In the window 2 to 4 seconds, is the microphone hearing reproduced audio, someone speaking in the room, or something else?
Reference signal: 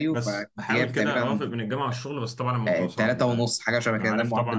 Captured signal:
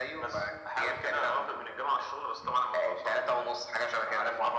echo only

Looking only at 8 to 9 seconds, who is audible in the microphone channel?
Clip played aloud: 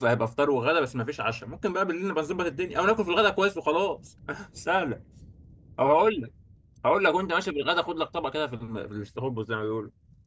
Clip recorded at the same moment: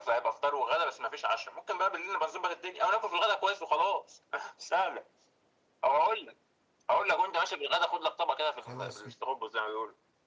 both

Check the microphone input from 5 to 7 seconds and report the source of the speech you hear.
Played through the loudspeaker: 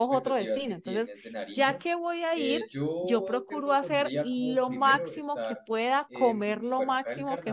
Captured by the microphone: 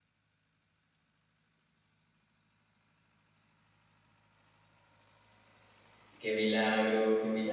user only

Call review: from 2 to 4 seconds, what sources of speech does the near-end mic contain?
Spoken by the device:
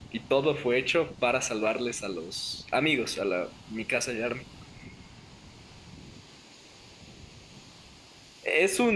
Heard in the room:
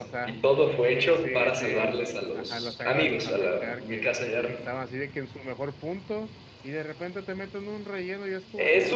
both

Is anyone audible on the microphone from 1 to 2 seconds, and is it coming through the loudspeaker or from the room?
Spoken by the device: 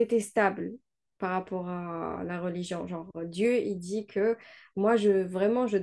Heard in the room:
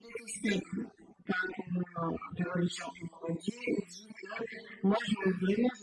echo only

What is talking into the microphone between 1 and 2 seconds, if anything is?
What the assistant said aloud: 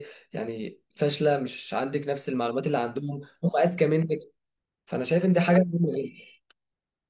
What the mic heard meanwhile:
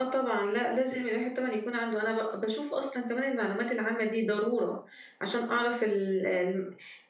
user only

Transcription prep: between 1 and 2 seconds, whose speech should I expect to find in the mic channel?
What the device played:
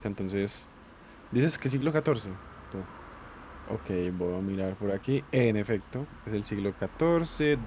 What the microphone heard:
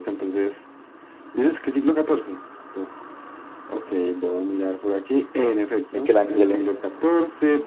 echo only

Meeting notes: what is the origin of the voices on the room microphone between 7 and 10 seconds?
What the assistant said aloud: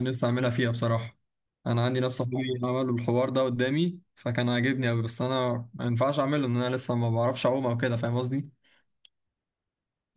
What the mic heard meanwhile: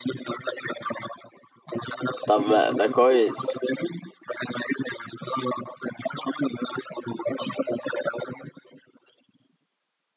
echo only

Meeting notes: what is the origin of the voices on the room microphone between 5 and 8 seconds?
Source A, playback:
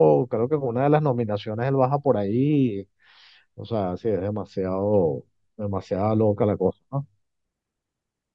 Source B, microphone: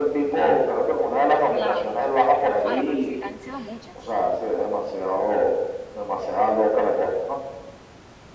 echo only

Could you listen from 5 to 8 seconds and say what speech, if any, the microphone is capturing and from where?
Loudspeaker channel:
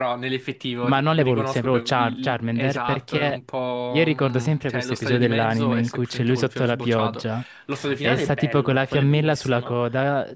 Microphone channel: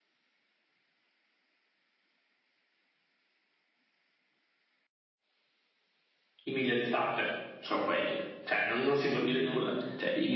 user only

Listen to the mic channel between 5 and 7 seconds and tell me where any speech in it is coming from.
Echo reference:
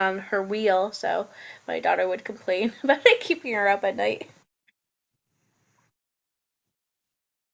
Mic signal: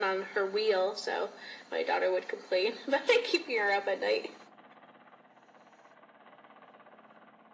neither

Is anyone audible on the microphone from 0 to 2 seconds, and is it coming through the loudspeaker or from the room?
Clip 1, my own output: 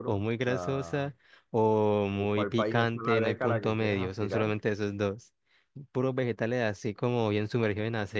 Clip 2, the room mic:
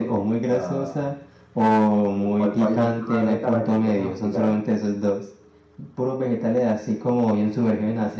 echo only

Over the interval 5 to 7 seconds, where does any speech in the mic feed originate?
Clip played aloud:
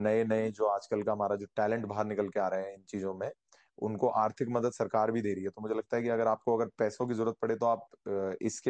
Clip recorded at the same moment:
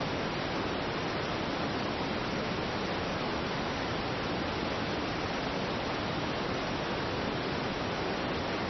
neither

